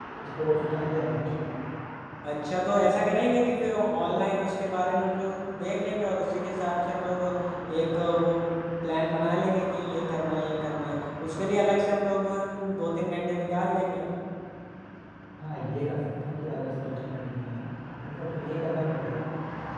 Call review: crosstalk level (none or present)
none